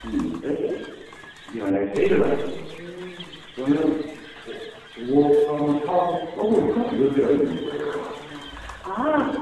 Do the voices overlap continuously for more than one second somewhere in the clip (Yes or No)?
No